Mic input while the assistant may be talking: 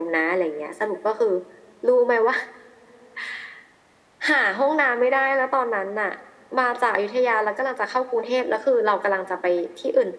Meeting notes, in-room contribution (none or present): none